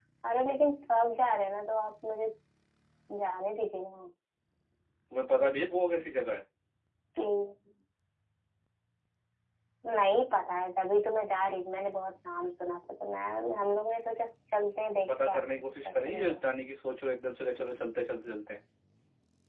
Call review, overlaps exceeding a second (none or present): present